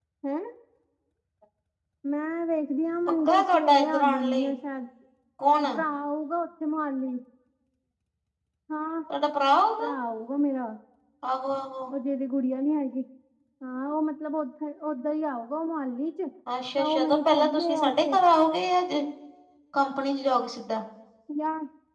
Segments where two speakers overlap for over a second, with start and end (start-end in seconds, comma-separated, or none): 3.3-4.5, 16.8-18.2